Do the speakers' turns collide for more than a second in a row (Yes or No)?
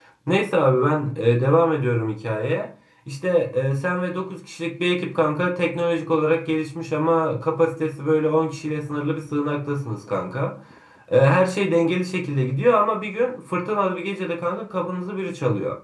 No